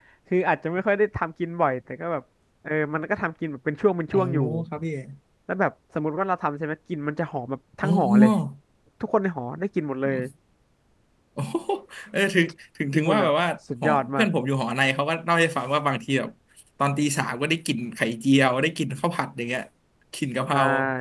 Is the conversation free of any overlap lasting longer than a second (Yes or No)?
Yes